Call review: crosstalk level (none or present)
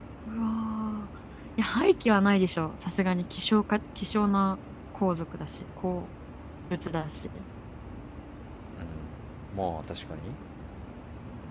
none